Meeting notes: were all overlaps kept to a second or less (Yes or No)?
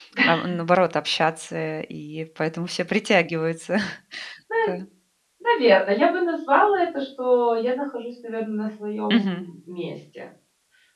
Yes